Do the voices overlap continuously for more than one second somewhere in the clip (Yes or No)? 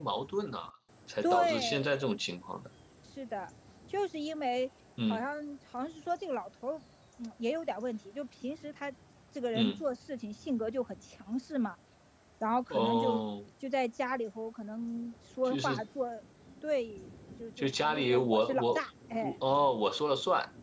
Yes